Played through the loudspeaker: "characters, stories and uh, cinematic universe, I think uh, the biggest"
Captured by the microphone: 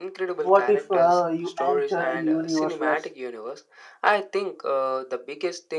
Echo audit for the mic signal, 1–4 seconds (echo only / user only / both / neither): both